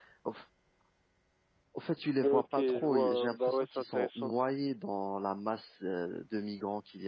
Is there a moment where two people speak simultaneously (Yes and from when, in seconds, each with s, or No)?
Yes, from 2.2 s